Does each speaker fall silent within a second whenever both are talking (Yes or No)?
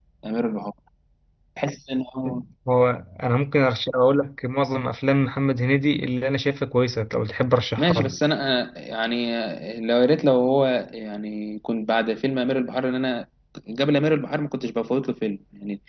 Yes